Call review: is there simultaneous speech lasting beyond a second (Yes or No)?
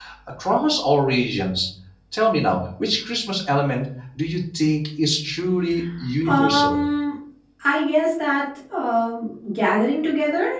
No